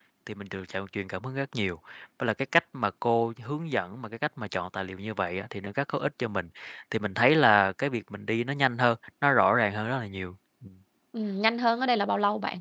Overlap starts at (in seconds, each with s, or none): none